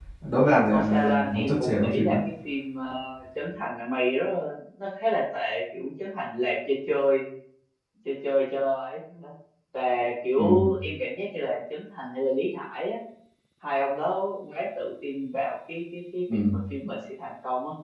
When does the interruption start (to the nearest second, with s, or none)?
1 s